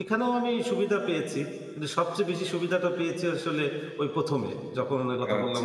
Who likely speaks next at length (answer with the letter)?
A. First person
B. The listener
B